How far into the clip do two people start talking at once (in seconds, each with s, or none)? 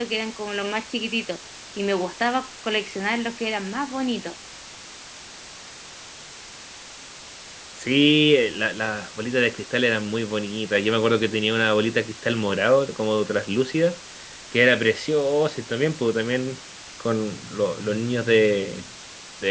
none